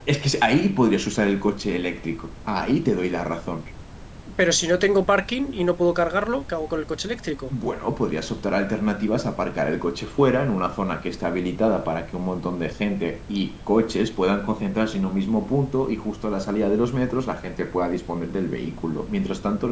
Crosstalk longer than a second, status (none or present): none